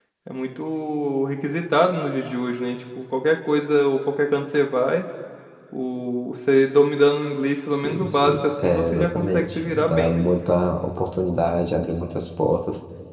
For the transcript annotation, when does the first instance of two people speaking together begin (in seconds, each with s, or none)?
7.8 s